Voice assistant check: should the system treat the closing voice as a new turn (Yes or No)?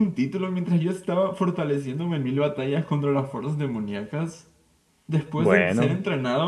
No